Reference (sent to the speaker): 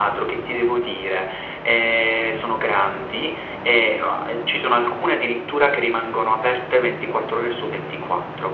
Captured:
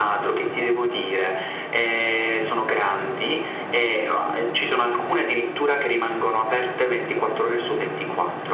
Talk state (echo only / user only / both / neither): echo only